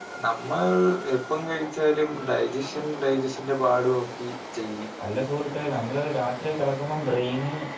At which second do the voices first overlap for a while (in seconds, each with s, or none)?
none